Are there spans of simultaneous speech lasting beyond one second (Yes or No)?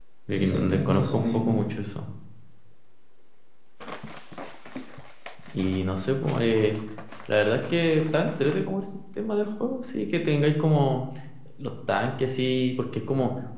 Yes